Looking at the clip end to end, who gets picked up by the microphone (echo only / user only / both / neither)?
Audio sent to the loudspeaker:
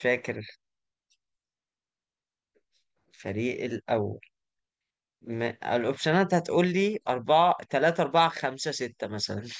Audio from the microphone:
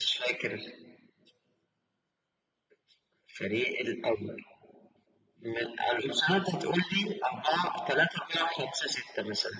echo only